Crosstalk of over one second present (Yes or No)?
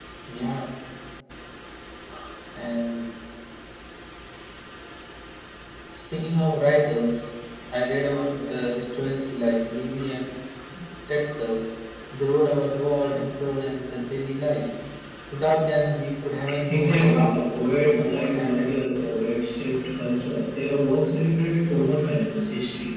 Yes